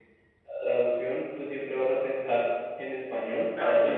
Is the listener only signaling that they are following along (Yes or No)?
Yes